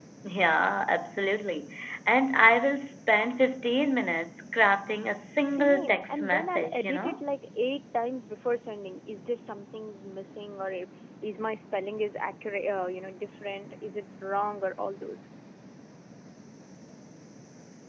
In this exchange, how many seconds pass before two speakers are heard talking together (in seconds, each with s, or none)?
5.5 s